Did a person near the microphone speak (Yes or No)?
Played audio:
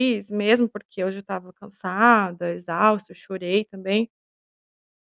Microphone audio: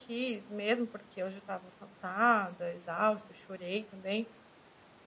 No